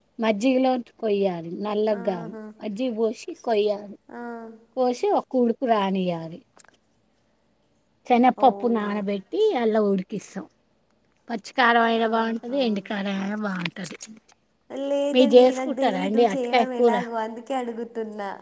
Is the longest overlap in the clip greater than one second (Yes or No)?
Yes